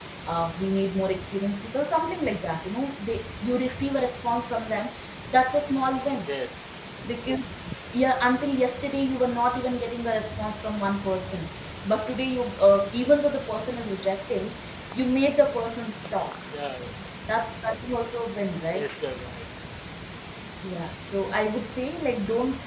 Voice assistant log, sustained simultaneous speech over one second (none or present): none